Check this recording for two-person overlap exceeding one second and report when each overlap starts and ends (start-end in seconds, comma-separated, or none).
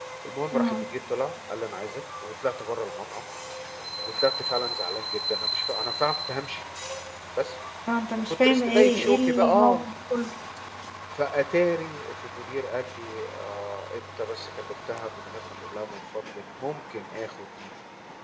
8.2-9.8